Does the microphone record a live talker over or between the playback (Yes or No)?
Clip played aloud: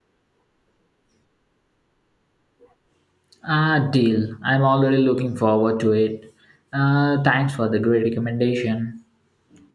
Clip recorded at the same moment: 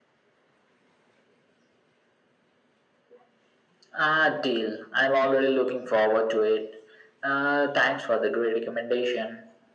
No